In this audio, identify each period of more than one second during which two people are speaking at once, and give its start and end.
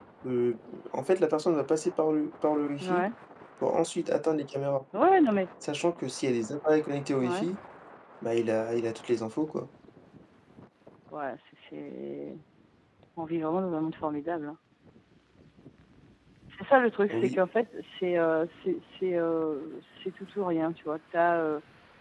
none

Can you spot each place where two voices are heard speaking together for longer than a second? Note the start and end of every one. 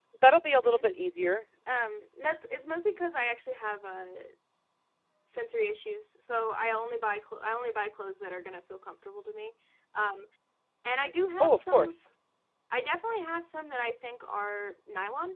none

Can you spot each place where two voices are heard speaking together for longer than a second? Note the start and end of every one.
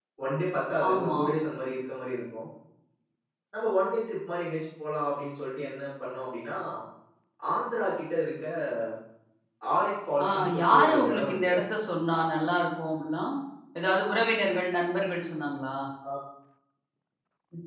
10.2-11.6

